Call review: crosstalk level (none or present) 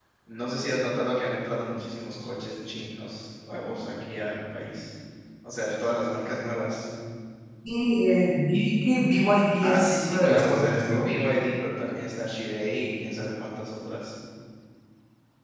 present